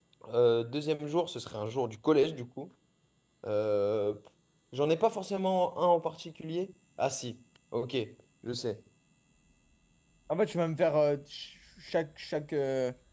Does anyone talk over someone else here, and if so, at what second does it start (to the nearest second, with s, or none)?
none